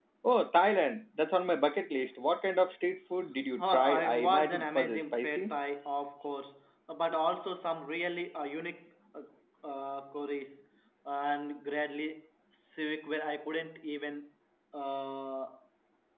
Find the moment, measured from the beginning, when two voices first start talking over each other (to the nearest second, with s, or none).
4 s